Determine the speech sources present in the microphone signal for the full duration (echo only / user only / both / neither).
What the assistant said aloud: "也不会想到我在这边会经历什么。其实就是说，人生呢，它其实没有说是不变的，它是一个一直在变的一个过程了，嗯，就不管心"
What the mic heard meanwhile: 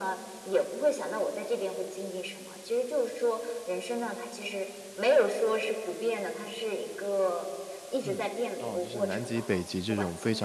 both